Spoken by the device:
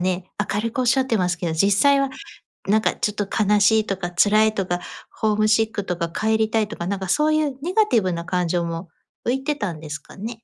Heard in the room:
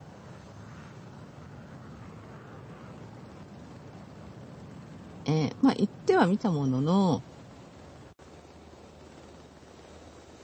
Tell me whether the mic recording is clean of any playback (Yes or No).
Yes